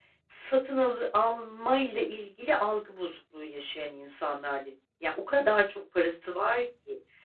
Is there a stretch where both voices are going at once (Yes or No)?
No